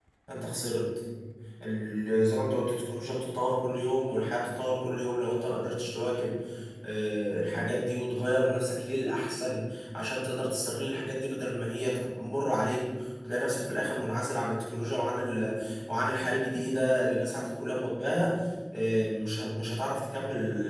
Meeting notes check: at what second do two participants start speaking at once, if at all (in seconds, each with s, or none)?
none